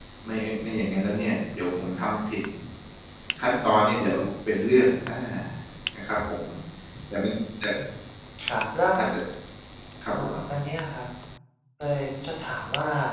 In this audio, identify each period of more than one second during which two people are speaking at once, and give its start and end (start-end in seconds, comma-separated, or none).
none